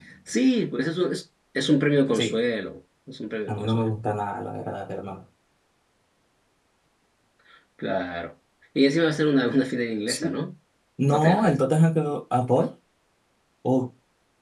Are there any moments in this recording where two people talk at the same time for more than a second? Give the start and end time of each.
none

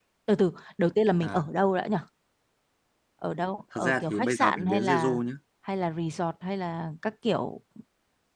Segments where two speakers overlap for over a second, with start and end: 3.7-5.2

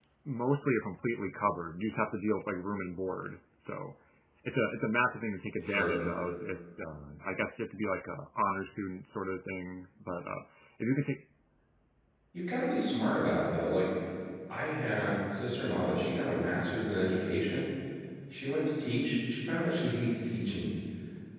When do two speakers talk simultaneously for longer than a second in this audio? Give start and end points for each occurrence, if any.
none

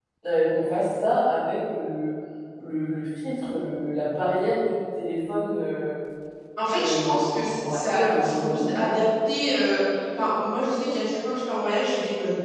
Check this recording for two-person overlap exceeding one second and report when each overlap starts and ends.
6.8-8.9

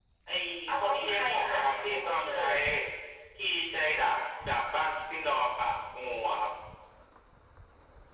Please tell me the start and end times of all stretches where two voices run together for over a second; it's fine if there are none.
0.8-2.5

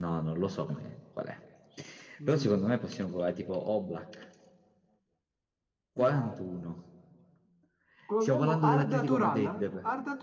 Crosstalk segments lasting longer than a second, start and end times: 8.2-9.6

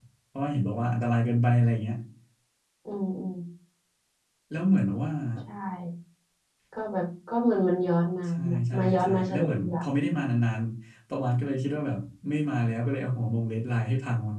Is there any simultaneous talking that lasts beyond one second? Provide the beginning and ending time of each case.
8.4-10.2

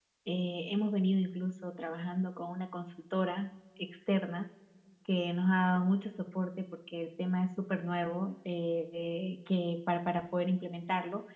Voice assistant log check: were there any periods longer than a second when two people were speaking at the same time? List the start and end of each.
none

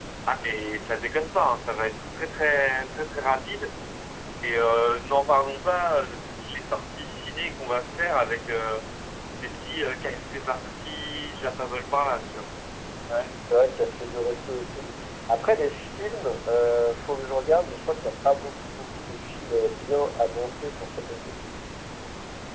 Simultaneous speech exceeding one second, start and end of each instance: none

